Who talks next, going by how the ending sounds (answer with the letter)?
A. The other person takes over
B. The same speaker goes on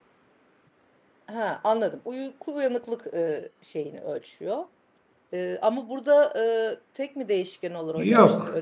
A